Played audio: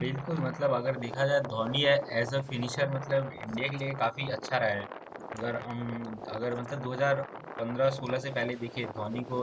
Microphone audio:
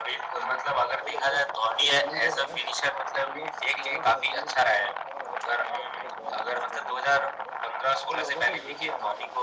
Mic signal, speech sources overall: both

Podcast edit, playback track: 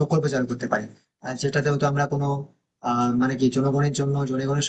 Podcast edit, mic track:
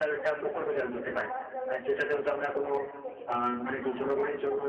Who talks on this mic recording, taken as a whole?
both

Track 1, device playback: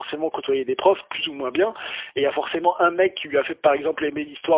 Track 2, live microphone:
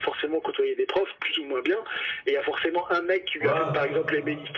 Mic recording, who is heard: both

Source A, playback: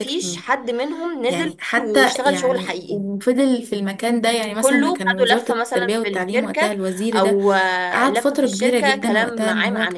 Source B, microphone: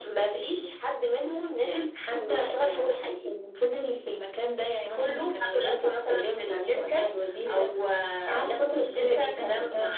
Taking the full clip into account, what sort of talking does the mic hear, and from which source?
echo only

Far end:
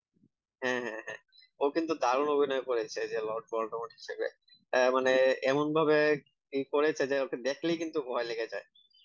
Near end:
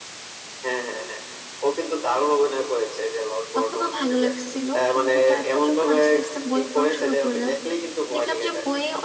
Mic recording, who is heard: both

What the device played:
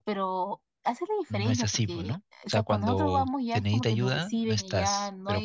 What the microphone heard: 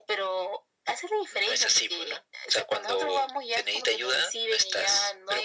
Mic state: echo only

